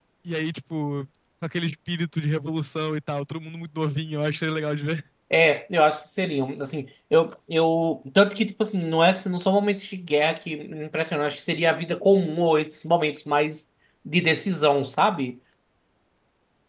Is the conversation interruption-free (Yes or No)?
Yes